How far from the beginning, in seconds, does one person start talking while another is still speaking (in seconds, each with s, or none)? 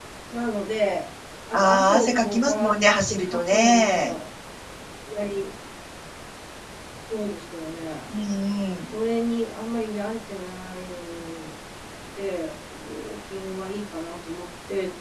1.5 s